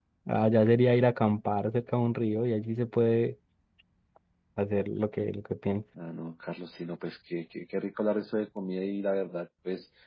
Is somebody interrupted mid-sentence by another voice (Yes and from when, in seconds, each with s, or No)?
No